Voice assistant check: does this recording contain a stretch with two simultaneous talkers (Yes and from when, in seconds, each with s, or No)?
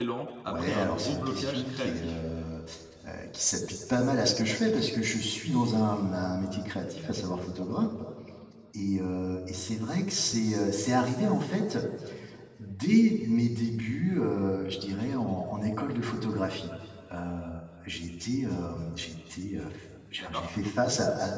Yes, from 0.5 s